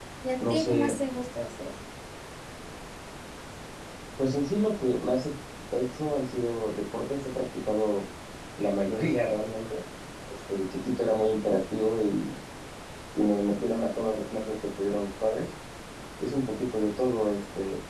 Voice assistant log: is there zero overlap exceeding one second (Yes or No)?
Yes